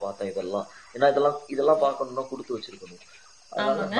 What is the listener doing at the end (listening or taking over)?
taking over